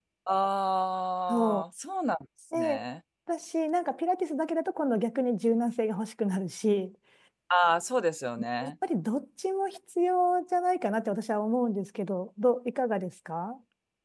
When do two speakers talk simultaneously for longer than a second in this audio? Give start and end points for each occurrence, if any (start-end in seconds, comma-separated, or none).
none